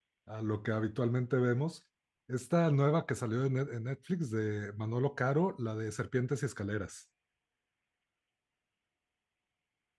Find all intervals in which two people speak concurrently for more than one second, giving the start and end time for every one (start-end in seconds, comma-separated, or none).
none